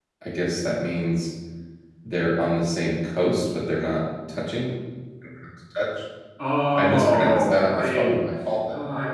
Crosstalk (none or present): present